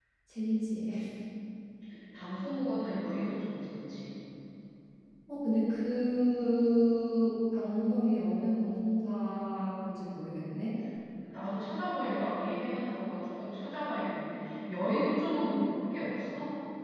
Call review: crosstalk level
none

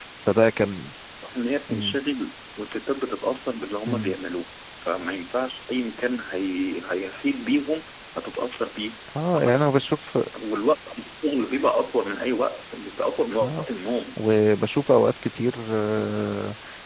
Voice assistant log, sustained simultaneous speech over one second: none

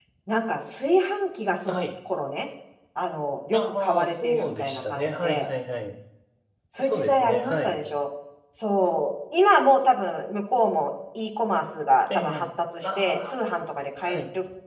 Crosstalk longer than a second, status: present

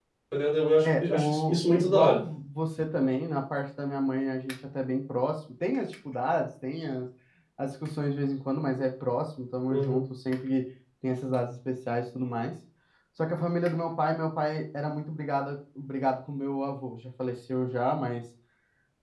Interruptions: present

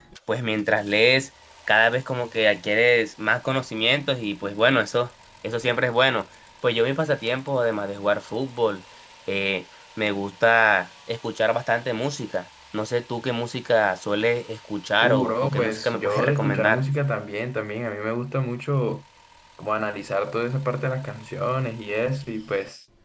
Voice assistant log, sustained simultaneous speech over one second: present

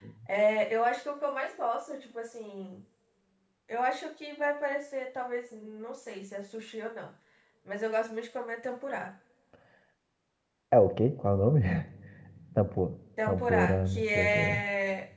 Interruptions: present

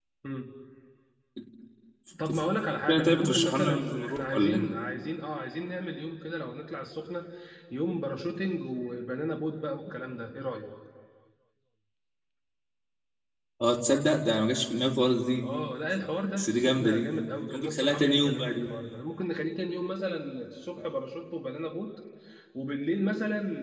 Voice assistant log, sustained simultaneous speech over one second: present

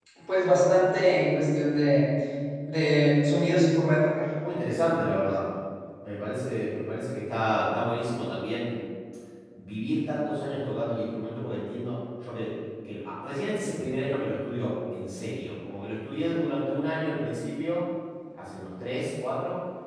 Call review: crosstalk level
none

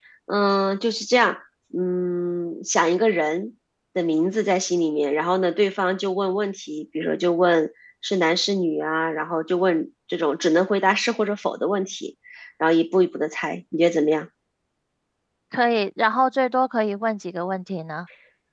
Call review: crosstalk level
none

